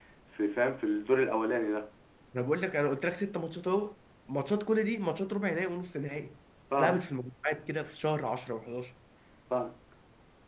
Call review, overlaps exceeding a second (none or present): none